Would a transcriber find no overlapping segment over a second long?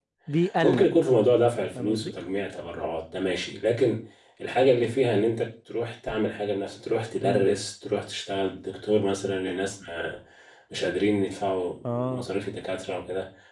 Yes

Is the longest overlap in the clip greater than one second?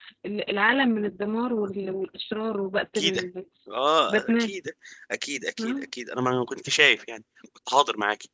No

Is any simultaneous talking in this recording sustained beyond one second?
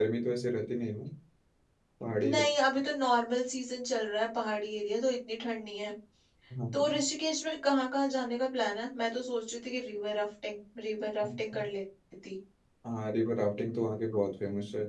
No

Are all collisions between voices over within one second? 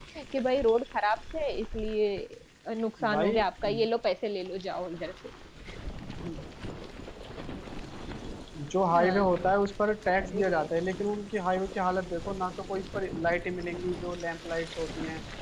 Yes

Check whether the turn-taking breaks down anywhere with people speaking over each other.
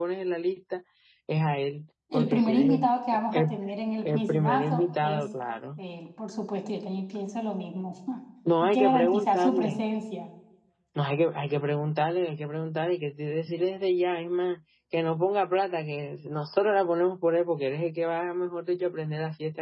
Yes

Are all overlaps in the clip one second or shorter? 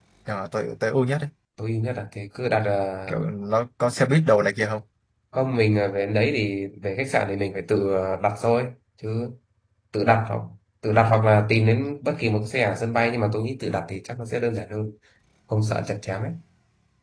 Yes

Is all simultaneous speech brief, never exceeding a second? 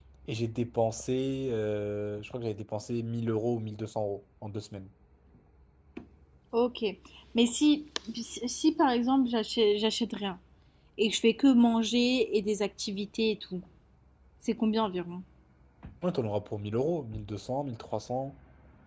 Yes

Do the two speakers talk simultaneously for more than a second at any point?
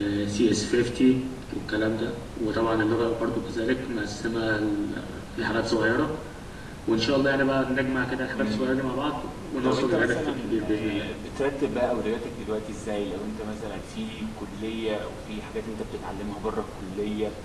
Yes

